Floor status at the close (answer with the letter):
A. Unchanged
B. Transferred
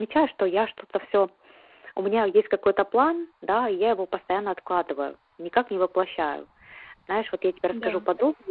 A